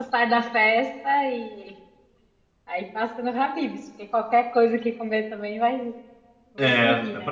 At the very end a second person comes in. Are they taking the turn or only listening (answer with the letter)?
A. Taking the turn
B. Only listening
A